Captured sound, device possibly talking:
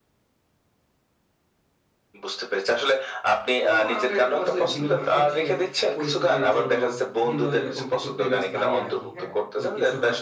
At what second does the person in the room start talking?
4 s

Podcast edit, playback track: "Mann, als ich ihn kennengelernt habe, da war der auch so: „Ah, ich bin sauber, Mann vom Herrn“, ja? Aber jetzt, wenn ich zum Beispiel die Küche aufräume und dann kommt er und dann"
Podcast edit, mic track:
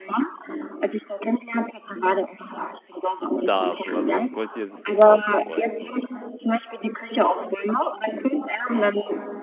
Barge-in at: 3 s

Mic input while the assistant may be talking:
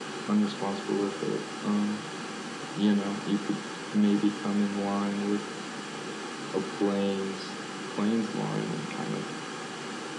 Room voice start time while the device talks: none

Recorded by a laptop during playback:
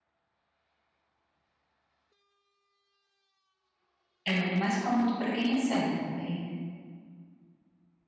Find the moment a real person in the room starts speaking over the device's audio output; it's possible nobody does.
4 s

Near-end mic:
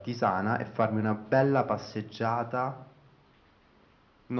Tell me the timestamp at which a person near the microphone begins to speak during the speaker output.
none

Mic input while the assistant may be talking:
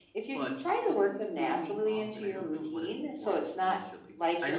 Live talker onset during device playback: 0 s

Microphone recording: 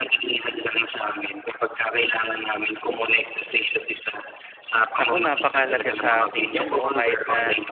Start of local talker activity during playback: 5 s

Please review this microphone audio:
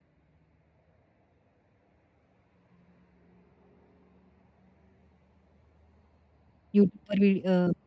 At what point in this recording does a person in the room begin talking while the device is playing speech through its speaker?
7 s

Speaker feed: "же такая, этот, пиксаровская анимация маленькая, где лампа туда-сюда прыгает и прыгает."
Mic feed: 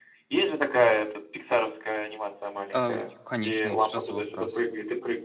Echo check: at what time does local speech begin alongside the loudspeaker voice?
3 s

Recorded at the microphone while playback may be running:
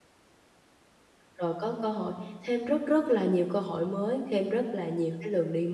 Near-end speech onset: 1 s

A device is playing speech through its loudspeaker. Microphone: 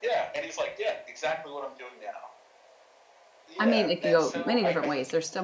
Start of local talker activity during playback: 4 s

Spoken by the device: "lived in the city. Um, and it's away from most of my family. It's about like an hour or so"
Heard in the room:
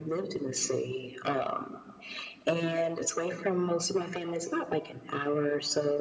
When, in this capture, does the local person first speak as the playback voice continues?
none

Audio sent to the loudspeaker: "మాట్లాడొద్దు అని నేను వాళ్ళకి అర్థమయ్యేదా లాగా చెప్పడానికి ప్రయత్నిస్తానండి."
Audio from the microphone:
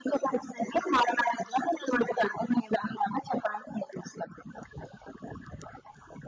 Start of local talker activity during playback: none

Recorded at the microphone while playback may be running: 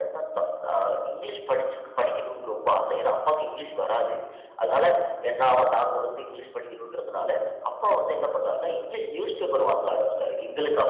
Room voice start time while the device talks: none

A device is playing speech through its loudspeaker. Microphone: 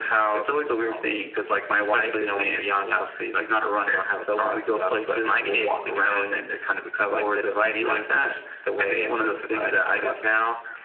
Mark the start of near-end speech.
none

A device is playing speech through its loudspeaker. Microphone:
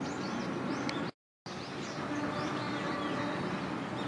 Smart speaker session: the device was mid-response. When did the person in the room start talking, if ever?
none

